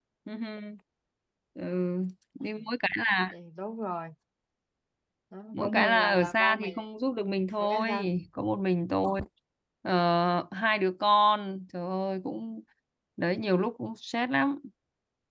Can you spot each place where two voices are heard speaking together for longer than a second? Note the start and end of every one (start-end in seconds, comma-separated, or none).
5.5-6.8